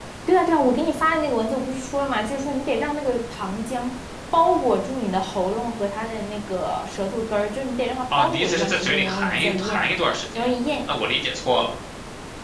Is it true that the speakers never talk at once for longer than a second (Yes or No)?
No